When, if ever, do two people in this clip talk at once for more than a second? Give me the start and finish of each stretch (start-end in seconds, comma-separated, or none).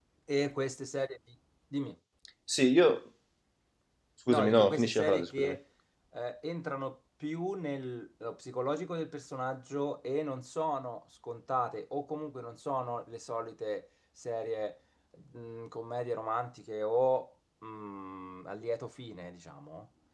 4.3-5.6